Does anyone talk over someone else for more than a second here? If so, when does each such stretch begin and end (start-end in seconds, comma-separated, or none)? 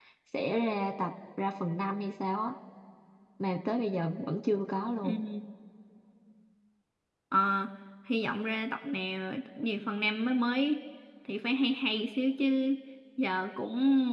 none